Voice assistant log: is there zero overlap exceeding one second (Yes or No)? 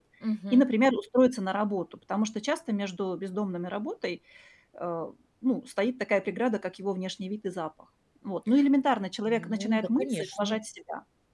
No